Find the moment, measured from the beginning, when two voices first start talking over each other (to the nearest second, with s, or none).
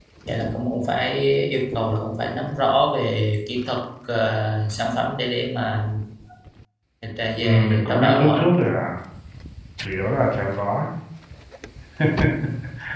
7 s